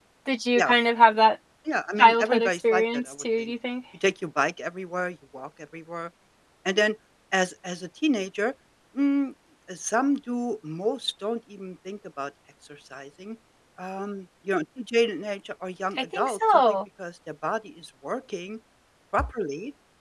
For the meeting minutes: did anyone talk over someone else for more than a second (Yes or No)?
Yes